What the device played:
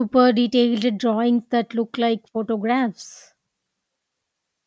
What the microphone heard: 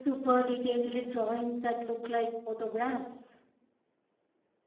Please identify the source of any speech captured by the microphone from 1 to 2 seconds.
echo only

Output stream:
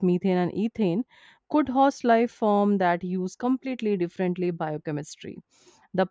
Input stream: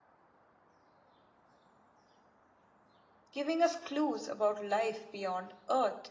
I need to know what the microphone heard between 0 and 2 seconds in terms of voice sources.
neither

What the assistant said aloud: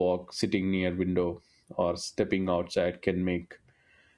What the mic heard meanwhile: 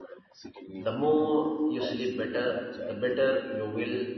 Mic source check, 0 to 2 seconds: both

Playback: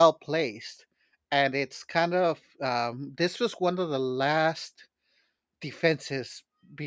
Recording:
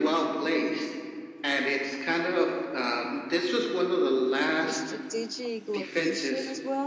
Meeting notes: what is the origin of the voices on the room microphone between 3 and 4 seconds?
echo only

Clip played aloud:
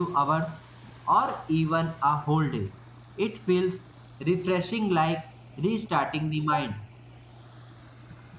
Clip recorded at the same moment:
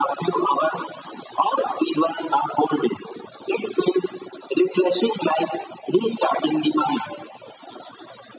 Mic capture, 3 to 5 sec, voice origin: echo only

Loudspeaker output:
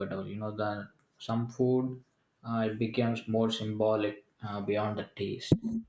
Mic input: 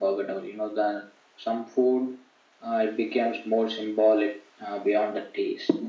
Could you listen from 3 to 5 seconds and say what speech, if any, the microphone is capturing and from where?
echo only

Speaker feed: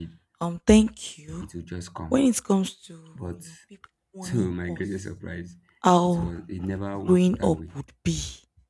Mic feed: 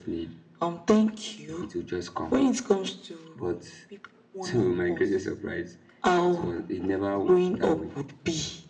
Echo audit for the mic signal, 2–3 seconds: echo only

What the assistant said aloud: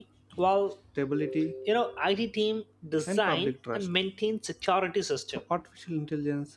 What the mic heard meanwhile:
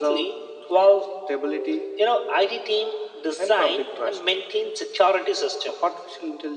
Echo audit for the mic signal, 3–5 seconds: echo only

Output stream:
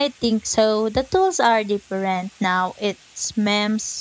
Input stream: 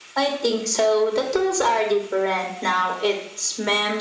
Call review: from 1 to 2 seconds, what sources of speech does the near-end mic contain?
echo only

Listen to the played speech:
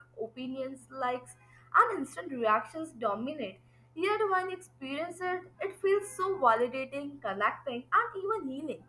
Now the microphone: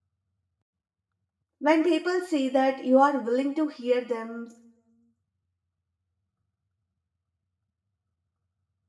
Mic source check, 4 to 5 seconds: user only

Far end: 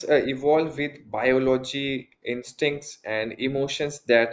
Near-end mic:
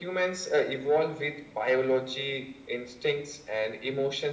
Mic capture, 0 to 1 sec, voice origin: echo only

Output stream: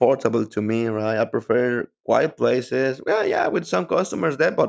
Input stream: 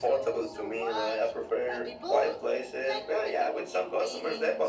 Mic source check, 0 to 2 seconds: both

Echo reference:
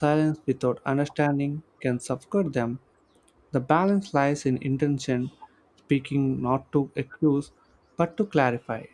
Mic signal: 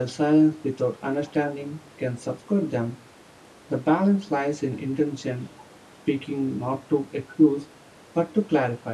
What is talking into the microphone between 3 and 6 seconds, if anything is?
echo only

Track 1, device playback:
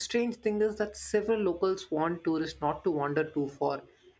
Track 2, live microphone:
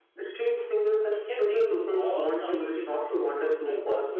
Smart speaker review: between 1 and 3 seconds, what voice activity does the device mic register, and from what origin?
both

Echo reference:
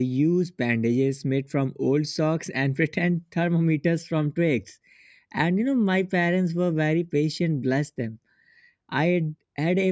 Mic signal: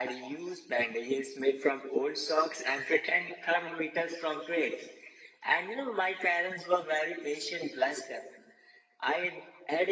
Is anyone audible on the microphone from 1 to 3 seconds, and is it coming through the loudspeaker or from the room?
echo only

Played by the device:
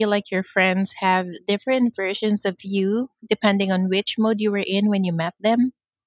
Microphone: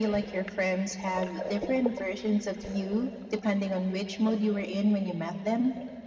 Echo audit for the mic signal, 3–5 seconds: echo only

